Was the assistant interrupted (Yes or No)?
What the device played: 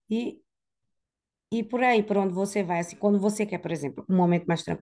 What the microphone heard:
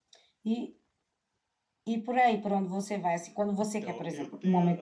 Yes